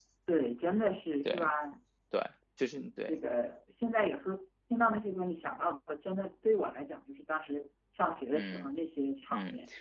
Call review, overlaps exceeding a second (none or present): none